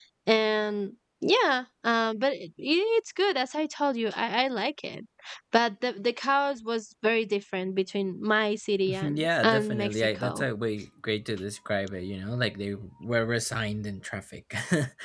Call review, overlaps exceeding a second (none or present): present